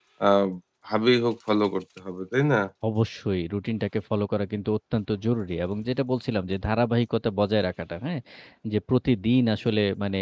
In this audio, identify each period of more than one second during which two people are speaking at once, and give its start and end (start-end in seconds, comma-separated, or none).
none